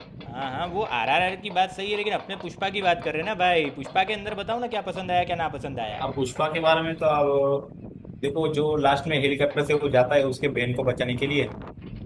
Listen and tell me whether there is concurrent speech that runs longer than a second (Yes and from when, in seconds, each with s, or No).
No